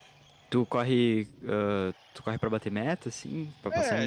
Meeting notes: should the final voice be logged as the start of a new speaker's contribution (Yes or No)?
Yes